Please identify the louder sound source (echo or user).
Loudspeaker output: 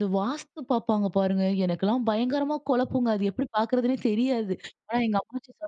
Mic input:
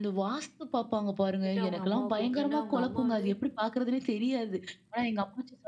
echo